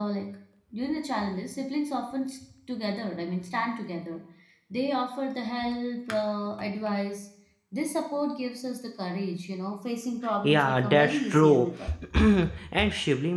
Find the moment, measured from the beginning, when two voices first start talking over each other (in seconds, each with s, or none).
10.2 s